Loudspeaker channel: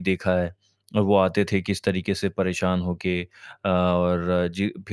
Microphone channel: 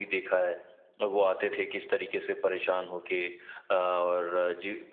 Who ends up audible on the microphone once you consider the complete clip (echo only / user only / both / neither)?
echo only